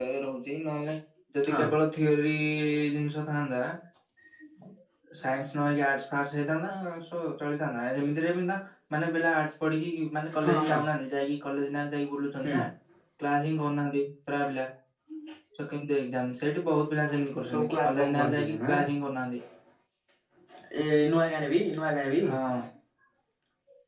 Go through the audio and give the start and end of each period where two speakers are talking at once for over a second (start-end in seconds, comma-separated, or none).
17.5-18.8